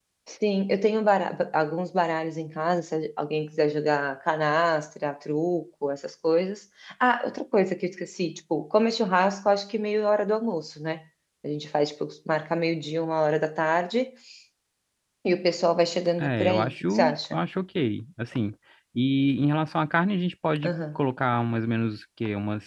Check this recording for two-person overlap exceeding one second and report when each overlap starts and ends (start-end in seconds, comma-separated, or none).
16.2-17.4